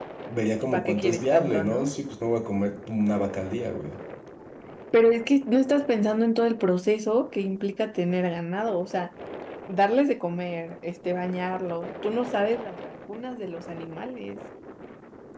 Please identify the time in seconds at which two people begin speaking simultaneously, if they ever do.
0.6 s

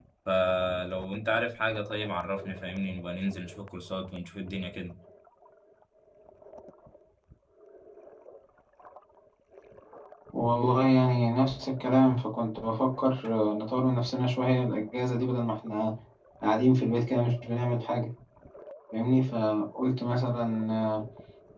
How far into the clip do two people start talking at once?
none

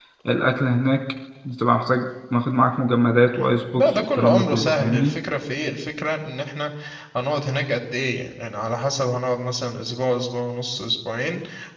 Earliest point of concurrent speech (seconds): 3.3 s

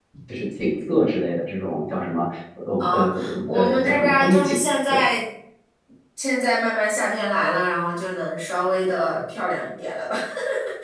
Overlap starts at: 2.8 s

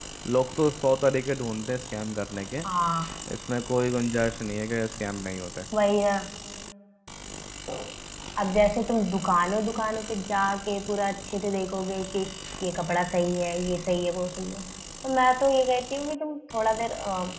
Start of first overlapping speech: none

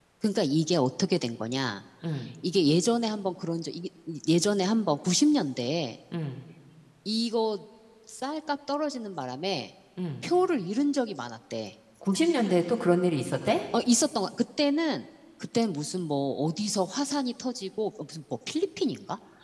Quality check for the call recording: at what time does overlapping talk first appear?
none

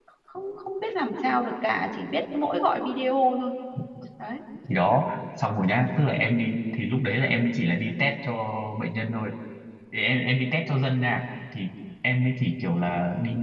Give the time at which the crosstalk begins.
none

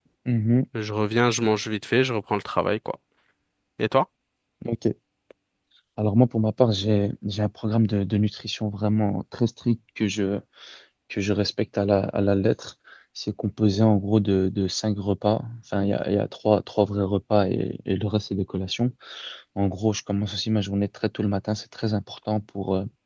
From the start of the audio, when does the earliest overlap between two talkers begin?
none

